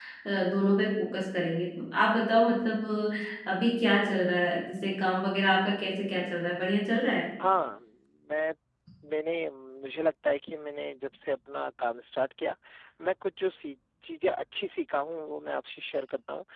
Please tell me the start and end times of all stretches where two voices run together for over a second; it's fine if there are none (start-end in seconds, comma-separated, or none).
none